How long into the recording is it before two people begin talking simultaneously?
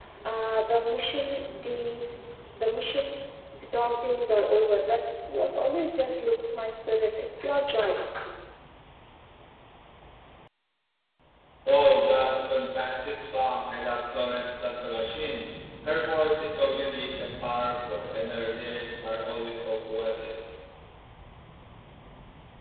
none

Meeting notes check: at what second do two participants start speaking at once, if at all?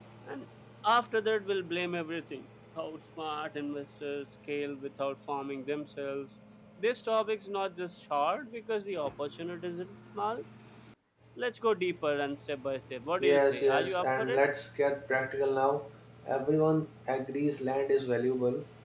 13.2 s

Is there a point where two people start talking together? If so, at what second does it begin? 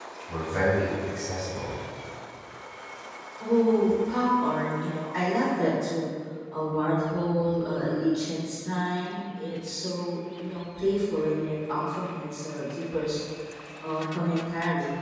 none

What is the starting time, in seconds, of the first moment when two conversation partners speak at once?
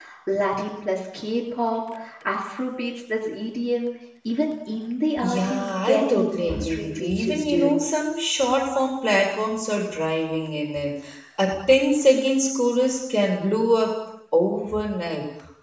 5.2 s

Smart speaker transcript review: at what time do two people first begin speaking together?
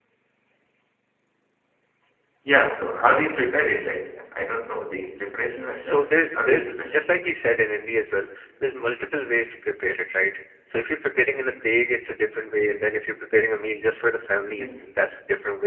5.7 s

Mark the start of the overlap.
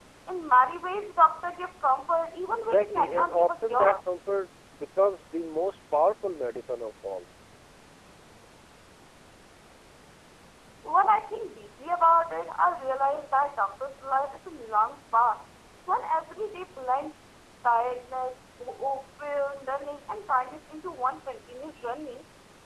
2.6 s

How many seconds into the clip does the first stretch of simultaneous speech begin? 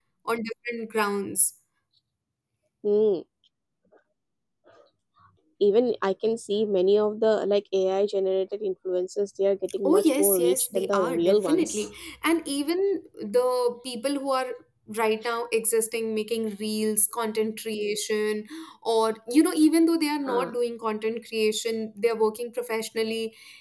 9.8 s

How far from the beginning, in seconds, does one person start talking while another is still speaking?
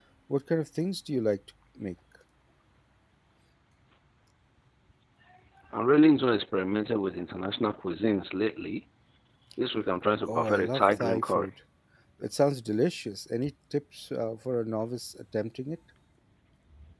10.3 s

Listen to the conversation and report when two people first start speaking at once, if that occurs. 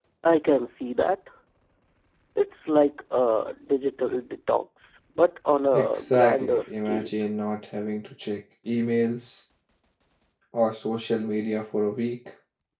5.7 s

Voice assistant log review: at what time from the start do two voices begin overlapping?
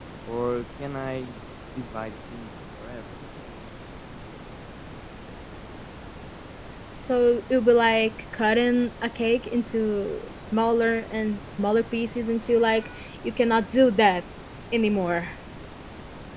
none

